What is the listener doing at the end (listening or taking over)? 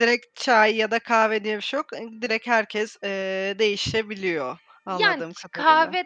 taking over